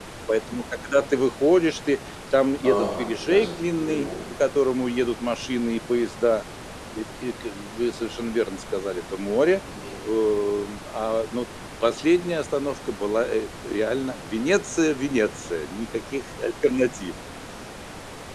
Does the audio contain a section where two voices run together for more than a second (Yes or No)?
Yes